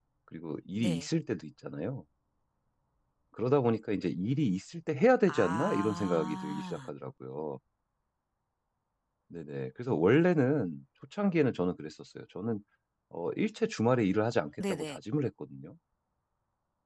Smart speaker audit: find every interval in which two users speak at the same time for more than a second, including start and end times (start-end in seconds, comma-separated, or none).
5.3-6.9